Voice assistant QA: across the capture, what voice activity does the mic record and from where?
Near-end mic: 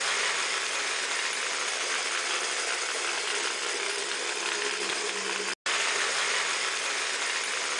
neither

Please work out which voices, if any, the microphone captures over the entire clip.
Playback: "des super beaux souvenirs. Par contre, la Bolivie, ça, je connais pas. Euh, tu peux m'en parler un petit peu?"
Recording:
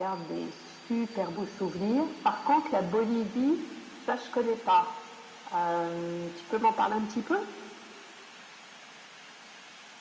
echo only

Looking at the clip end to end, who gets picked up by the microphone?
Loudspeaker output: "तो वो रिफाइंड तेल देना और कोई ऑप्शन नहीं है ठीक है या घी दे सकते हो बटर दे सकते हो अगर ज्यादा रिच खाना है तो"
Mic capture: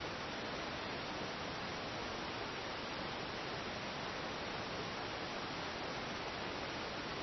neither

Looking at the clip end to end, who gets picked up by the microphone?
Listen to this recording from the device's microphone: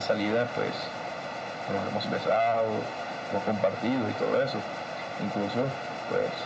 echo only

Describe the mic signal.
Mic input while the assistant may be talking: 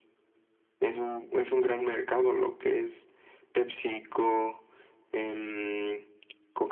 echo only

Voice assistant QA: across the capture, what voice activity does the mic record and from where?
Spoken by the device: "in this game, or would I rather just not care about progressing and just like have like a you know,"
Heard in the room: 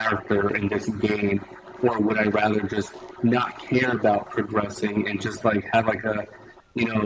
echo only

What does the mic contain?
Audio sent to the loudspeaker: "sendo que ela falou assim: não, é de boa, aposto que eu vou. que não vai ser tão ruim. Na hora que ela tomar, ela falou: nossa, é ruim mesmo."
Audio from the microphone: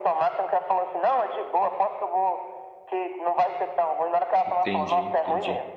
both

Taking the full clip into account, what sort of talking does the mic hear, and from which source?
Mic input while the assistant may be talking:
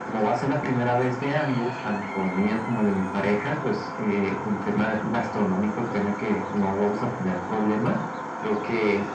echo only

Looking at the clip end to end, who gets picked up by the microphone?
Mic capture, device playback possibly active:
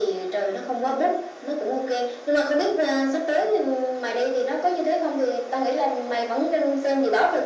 echo only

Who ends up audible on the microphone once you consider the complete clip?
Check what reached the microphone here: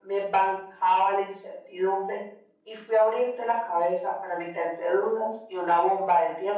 echo only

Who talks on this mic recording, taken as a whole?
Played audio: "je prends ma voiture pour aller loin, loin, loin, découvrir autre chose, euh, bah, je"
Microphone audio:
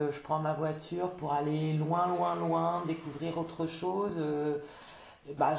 echo only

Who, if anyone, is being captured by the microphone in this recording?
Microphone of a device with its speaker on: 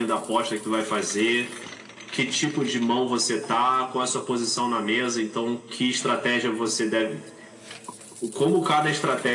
echo only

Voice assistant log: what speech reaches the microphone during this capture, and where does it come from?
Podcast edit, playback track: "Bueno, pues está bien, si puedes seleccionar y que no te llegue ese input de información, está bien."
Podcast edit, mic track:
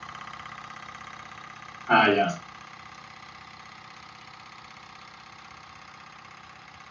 user only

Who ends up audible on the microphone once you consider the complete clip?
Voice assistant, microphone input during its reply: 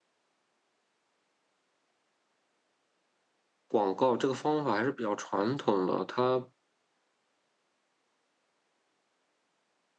user only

